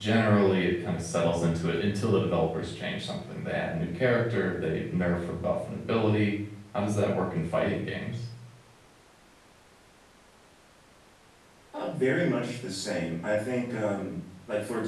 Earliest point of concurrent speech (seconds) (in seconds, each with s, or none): none